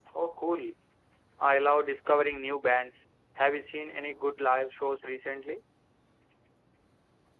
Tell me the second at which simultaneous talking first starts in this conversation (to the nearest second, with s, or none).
none